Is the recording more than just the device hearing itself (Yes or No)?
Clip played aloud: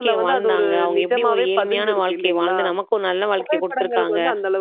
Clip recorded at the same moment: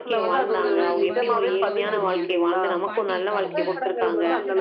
Yes